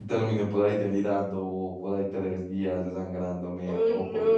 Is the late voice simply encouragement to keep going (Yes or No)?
No